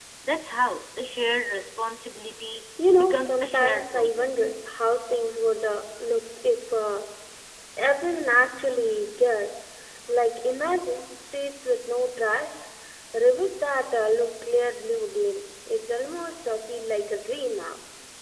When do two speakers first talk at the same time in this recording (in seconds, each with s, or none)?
2.8 s